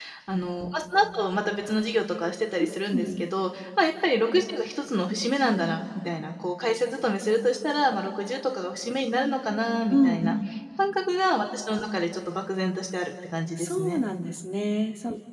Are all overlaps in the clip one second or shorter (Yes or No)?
Yes